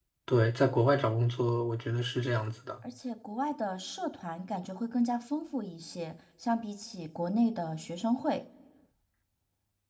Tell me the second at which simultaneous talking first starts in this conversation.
none

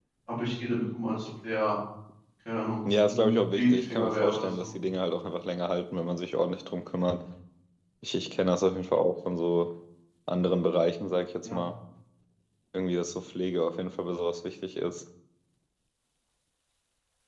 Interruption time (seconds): 3.1 s

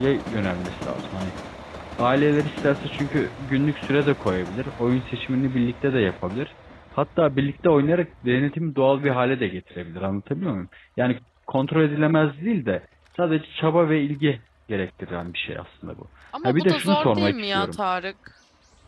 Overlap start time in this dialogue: 16.3 s

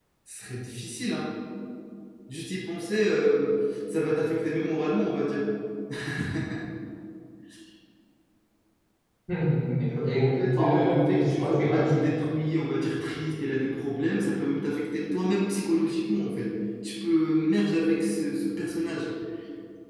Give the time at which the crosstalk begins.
10.2 s

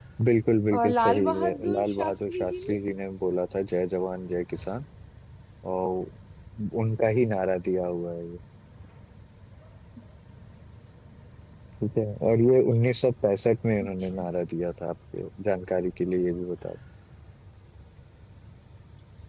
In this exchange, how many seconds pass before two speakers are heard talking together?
0.8 s

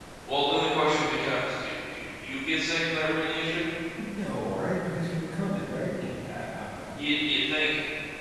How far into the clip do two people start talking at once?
none

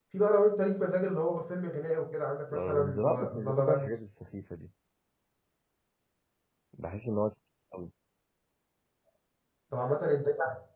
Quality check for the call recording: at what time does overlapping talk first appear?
2.5 s

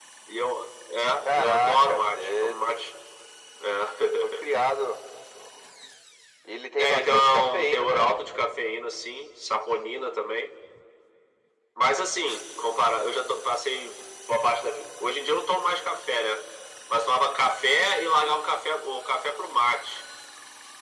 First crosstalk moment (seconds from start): 1.2 s

